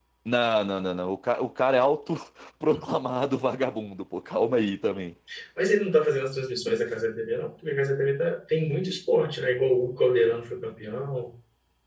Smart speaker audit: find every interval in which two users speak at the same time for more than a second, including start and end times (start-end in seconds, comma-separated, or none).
none